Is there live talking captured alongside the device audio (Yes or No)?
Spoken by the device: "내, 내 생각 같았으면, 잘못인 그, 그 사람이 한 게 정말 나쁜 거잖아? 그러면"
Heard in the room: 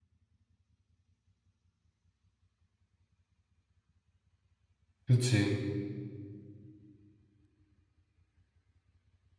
Yes